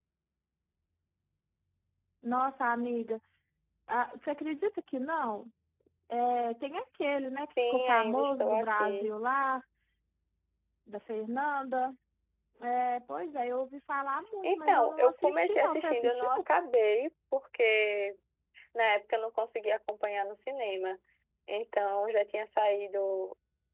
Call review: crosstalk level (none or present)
present